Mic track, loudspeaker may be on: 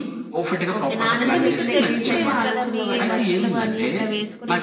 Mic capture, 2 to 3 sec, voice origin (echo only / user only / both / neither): both